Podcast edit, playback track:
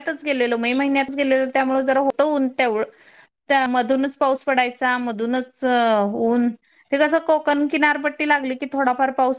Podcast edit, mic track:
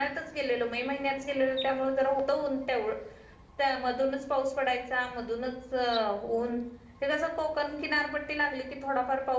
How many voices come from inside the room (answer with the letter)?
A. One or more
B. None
B